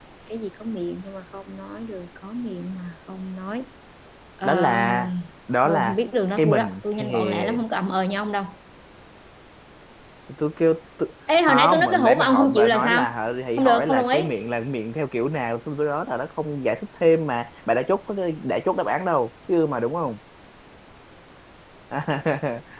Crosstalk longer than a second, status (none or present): present